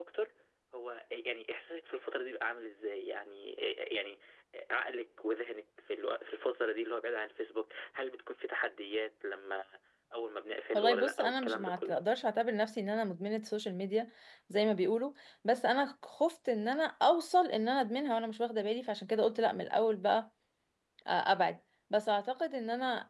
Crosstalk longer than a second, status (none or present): present